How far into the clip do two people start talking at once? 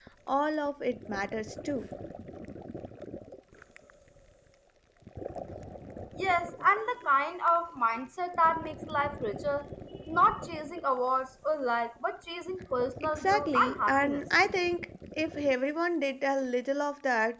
13.0 s

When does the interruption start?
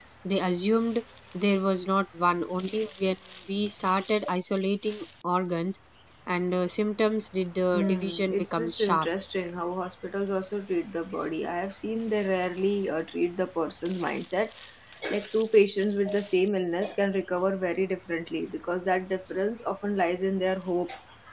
7.7 s

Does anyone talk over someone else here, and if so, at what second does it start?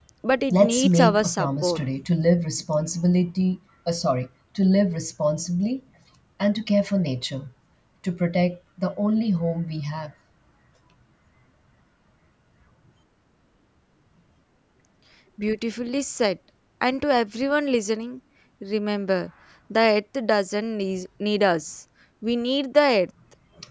0.5 s

